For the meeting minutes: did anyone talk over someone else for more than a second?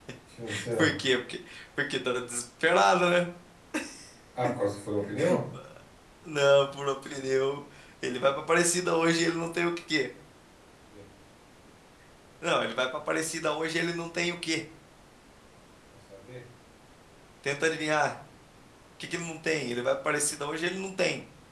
No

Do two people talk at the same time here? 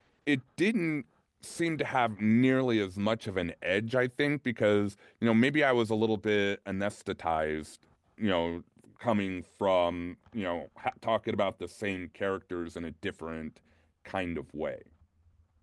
No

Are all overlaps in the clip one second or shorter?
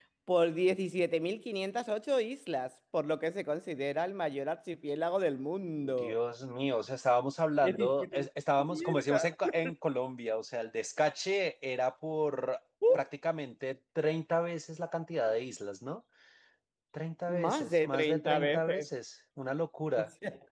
No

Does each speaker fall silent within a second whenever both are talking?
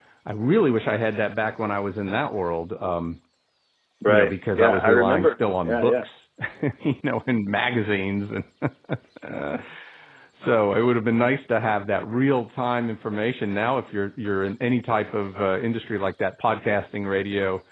No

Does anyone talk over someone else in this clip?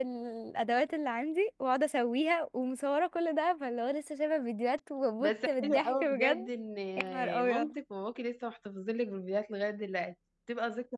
Yes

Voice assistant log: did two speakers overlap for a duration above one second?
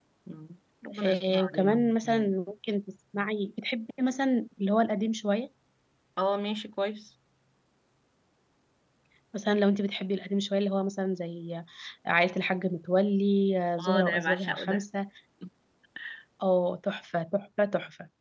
Yes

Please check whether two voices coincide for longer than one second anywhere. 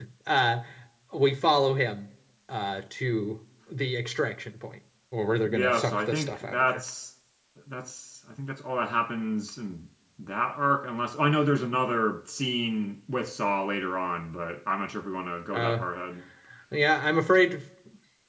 Yes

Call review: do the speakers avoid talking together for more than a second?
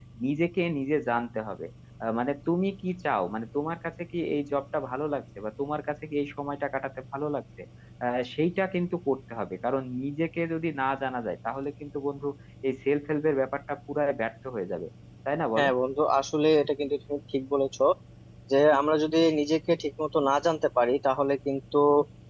Yes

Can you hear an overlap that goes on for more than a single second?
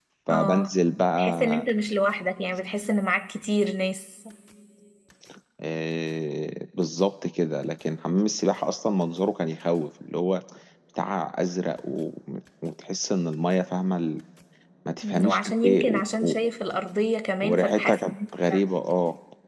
Yes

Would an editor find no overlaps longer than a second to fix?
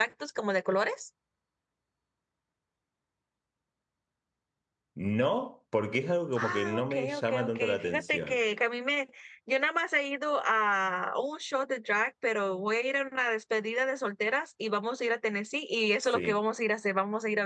No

